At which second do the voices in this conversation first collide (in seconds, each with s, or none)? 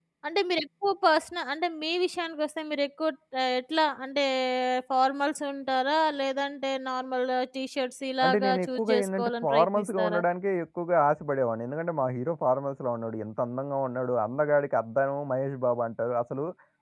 8.2 s